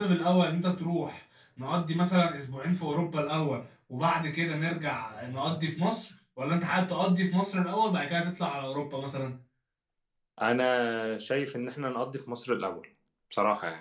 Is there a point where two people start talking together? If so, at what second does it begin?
none

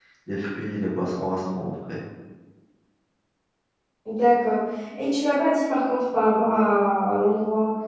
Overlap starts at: none

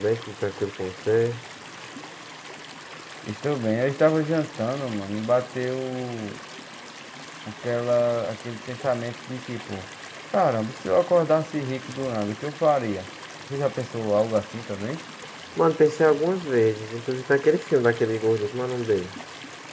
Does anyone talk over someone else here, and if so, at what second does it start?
none

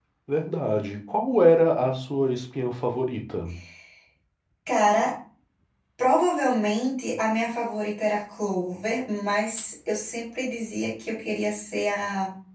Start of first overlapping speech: none

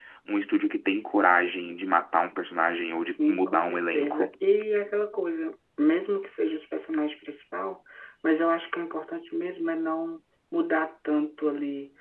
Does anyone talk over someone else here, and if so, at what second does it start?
3.1 s

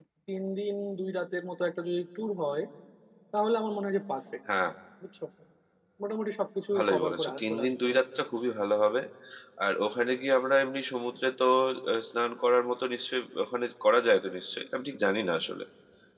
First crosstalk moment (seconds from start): 6.8 s

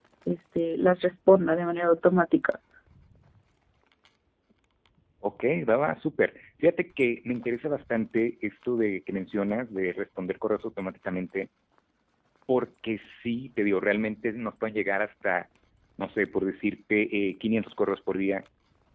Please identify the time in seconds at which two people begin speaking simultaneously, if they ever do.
none

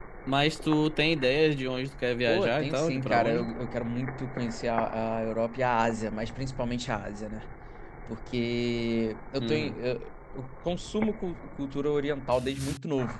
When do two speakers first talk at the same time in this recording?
2.3 s

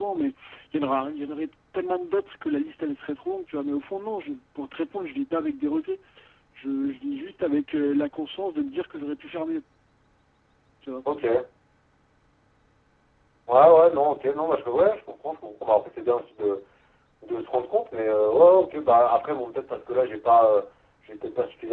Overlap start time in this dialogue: none

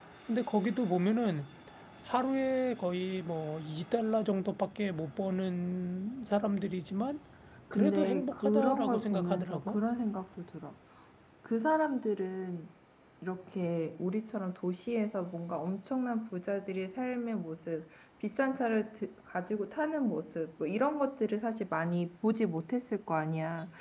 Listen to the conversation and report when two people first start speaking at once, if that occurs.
7.7 s

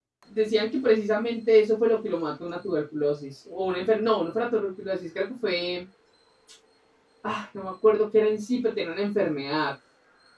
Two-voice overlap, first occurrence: none

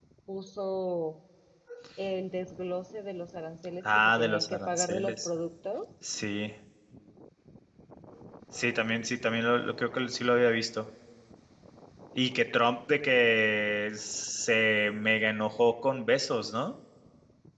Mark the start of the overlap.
3.9 s

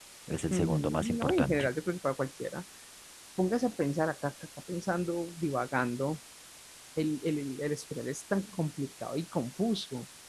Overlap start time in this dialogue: 0.5 s

